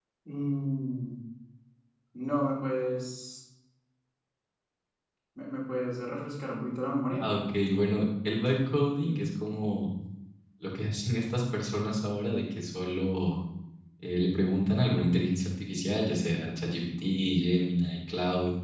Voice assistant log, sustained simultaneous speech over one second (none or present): none